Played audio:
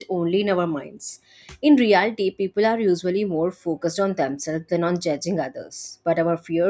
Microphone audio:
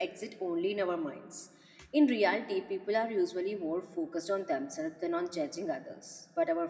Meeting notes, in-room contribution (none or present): none